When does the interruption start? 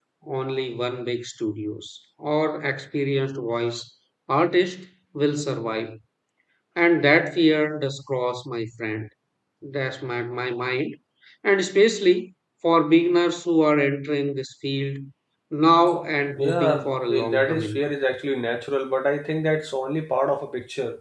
16.3 s

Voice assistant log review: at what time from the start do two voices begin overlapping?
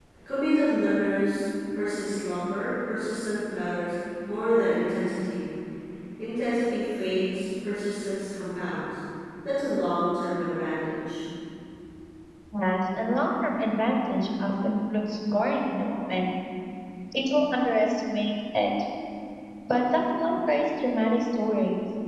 none

